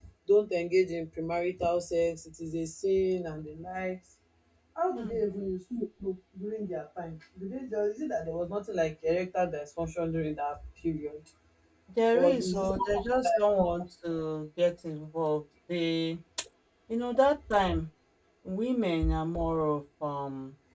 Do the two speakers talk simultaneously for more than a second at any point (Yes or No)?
Yes